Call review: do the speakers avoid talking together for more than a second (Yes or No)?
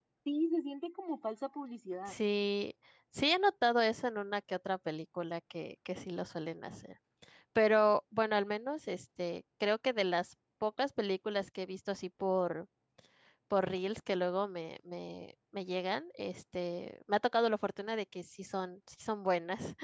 Yes